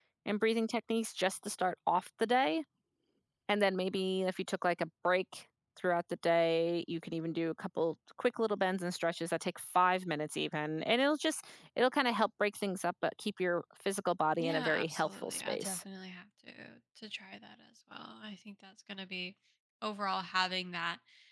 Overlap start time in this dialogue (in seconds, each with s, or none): 14.4 s